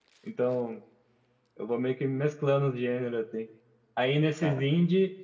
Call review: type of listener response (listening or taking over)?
listening